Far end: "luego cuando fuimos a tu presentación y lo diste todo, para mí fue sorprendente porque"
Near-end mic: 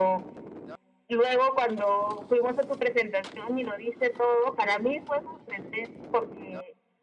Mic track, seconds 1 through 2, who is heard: echo only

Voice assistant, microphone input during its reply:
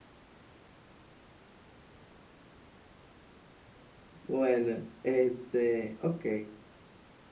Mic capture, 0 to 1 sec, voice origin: neither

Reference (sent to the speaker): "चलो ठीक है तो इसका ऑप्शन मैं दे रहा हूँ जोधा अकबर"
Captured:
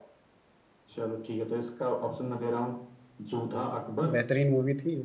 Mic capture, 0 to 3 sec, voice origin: echo only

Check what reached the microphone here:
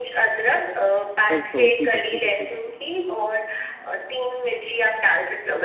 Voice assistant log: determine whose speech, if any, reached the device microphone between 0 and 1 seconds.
echo only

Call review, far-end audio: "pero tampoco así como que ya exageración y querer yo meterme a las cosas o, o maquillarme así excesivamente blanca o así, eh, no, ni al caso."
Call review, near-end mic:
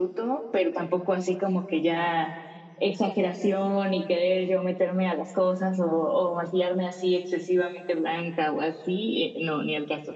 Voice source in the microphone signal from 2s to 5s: echo only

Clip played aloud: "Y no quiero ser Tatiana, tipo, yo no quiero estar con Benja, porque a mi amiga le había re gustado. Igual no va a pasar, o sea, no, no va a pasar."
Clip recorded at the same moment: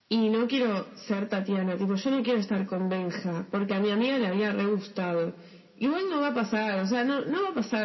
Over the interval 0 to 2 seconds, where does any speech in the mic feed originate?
echo only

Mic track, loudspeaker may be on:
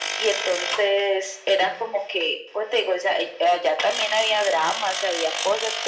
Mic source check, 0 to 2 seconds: echo only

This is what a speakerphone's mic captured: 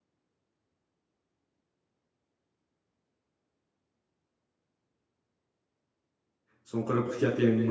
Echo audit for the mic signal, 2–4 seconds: neither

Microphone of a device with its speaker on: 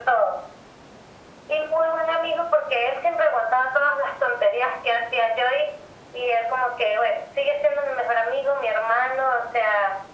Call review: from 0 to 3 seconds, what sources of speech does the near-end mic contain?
echo only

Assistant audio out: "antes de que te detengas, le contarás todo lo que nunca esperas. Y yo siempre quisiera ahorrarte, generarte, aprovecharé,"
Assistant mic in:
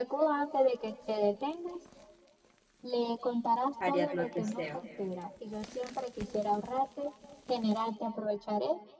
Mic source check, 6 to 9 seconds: echo only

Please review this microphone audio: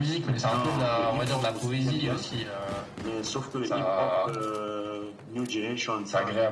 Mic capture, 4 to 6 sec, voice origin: echo only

